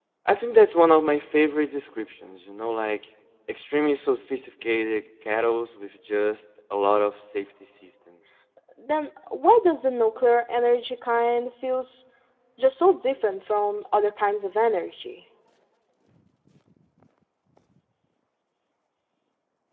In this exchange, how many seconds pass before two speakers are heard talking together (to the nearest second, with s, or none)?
none